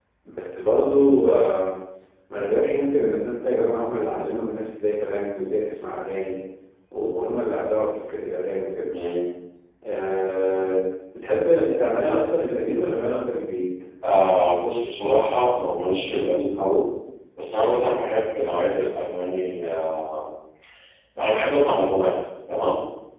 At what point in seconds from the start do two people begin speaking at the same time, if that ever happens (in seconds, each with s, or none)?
none